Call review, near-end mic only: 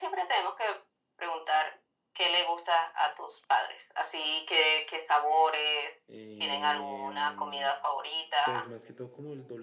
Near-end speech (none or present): present